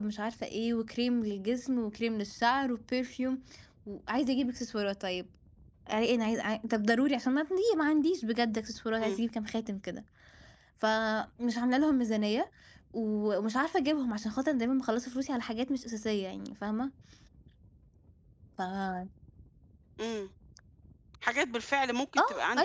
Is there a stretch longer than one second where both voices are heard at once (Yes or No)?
No